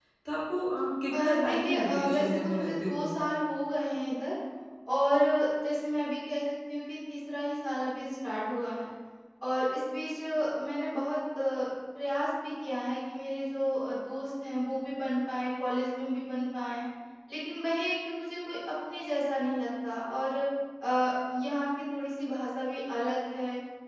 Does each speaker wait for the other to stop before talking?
No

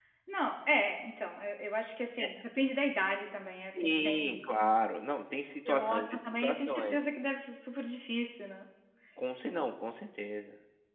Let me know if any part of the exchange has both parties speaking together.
Yes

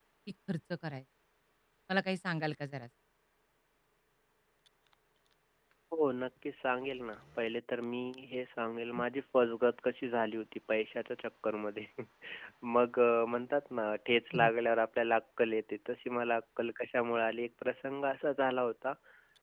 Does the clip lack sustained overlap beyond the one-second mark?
Yes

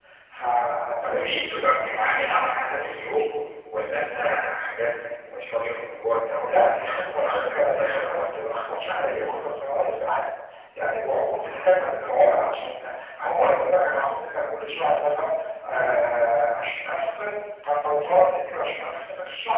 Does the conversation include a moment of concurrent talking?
Yes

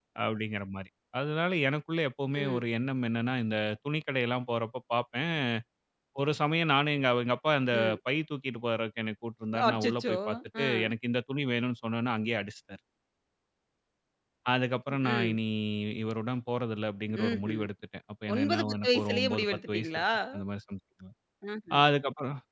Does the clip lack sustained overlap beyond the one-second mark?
No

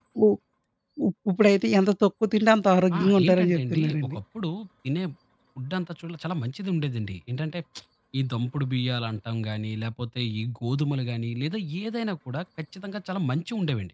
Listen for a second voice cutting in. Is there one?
Yes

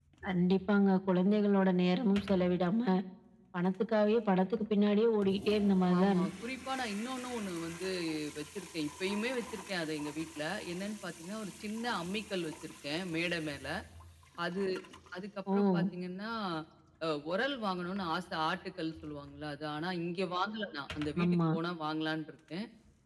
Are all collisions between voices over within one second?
Yes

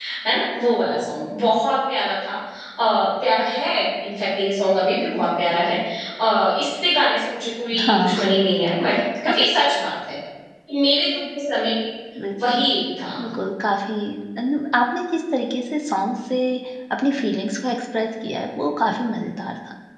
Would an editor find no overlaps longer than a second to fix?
Yes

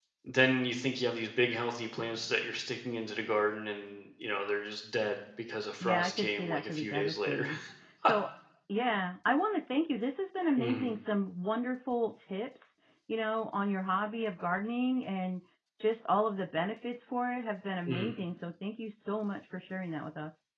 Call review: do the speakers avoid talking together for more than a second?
No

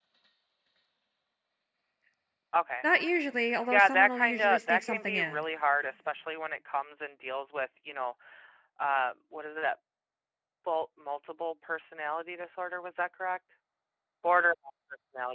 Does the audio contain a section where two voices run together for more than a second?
Yes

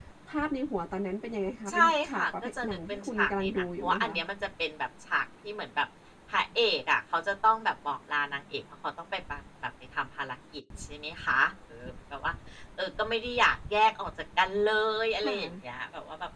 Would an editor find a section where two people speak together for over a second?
Yes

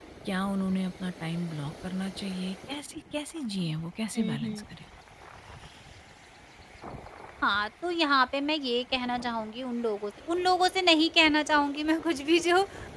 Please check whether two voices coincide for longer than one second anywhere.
No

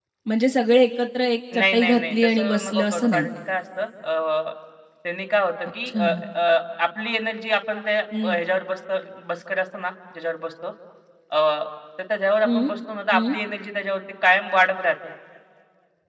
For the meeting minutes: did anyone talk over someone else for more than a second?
Yes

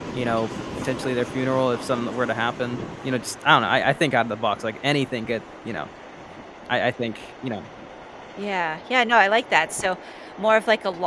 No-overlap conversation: Yes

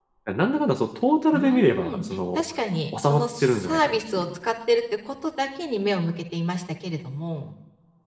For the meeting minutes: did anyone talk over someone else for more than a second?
Yes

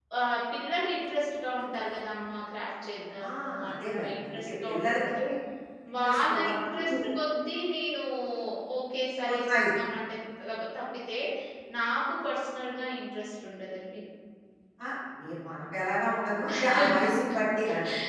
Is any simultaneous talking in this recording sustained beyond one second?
Yes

